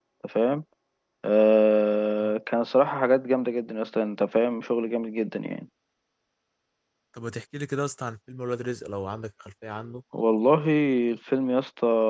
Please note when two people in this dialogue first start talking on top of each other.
none

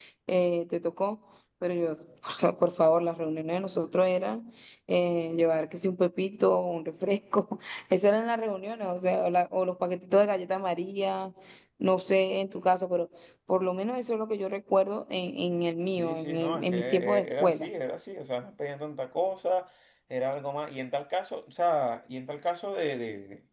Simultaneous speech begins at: 15.9 s

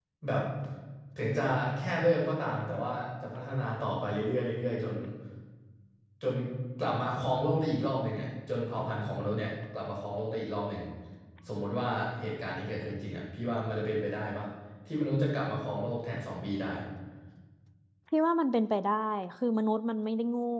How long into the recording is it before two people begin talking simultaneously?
none

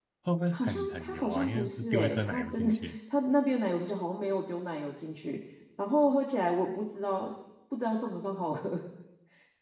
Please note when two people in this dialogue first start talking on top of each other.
0.5 s

